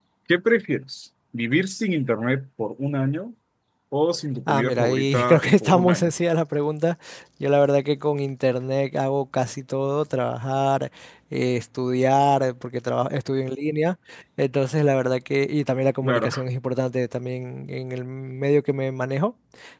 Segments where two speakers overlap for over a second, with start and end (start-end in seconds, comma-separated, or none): 4.5-6.1